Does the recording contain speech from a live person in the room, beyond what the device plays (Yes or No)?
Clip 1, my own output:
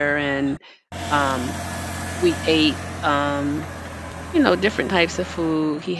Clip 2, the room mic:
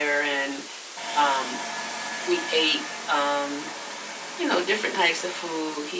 No